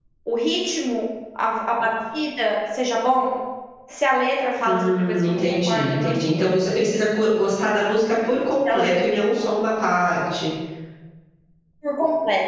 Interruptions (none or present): present